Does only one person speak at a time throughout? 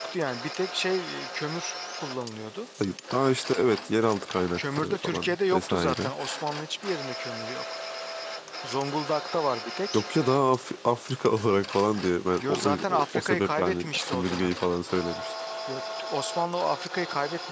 No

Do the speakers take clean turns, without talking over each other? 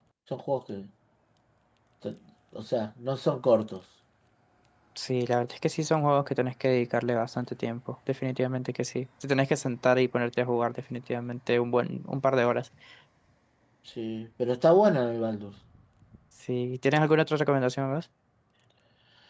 Yes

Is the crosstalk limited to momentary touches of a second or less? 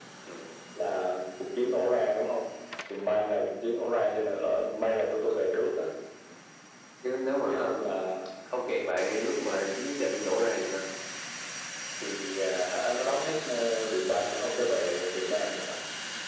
Yes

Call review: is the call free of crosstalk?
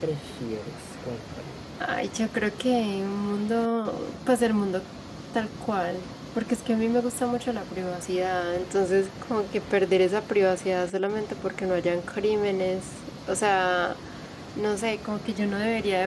Yes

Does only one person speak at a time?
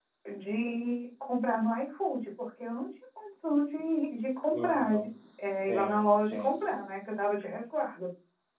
No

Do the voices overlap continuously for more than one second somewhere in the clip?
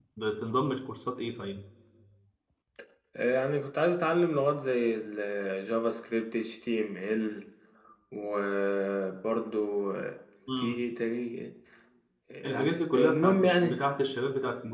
Yes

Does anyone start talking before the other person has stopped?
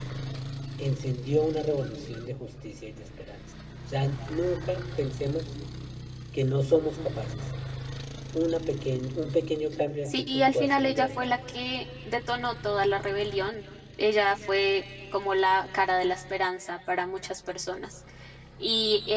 Yes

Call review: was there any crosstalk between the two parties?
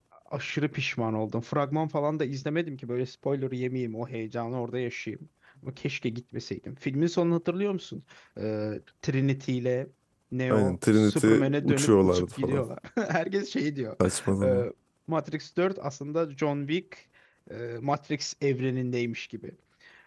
Yes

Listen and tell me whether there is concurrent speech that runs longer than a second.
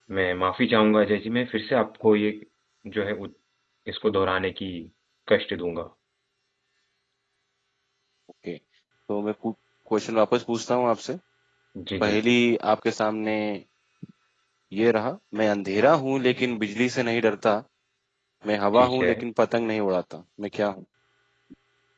No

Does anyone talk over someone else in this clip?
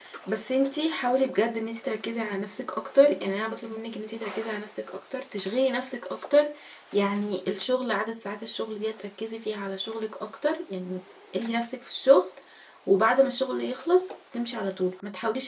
No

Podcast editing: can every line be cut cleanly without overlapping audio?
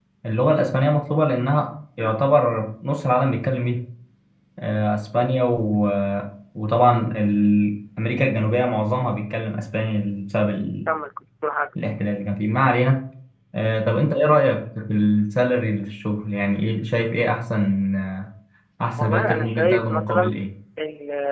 No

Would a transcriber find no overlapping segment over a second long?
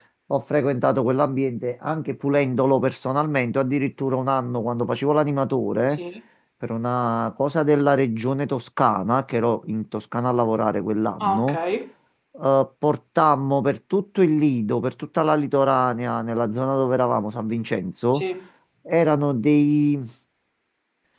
Yes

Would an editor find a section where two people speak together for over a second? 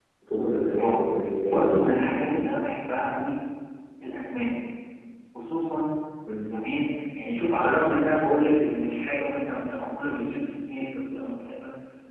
No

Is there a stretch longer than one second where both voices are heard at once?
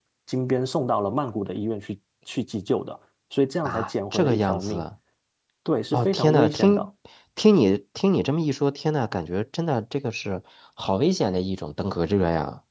Yes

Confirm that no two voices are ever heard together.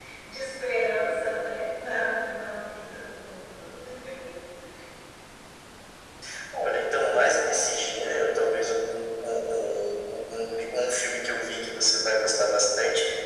Yes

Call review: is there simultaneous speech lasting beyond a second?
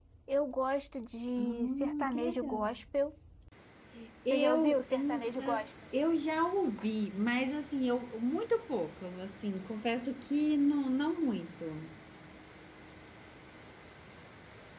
Yes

